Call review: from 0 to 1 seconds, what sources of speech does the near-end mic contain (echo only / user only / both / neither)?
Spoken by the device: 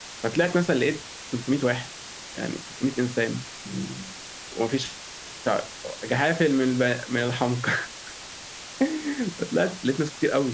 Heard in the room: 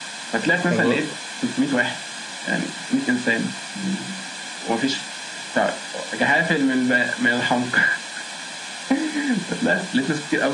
both